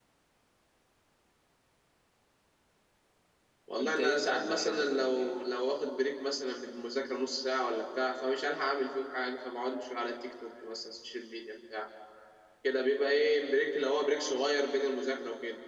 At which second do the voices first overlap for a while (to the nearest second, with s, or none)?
4 s